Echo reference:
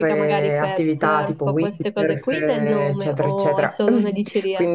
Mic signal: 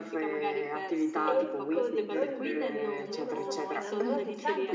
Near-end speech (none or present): present